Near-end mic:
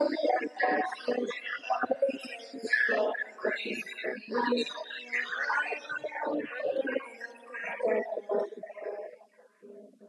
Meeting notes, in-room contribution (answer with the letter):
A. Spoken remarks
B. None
B